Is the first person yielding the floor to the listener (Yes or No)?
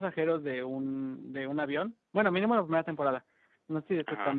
No